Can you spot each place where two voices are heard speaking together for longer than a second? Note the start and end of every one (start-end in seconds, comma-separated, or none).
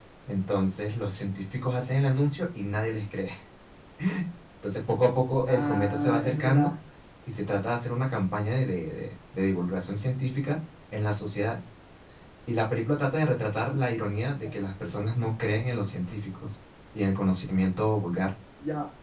5.5-6.7